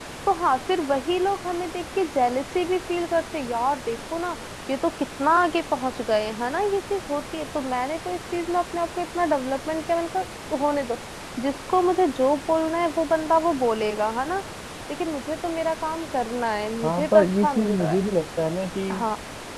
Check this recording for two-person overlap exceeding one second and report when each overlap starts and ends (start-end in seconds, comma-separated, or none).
16.8-18.1